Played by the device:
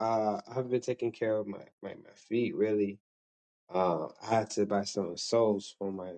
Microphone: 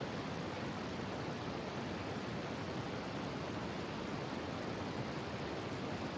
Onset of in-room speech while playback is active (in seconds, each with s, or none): none